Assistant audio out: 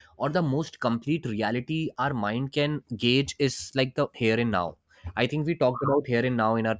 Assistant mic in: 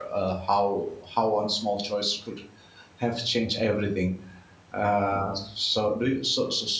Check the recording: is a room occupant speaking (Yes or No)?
Yes